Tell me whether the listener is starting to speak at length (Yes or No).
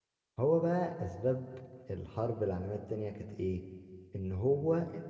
No